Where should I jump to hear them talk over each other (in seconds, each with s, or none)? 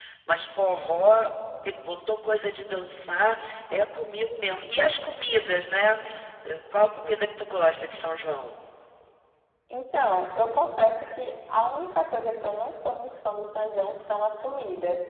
none